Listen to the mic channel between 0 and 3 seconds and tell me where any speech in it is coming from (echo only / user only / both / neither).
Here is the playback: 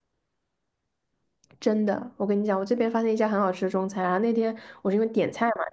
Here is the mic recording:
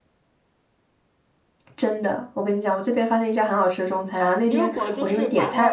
echo only